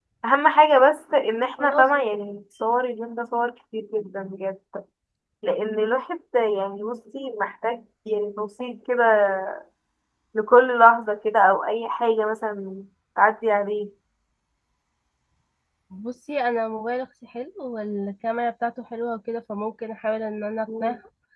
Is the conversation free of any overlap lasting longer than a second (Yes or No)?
Yes